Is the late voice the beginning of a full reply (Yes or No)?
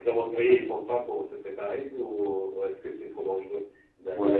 Yes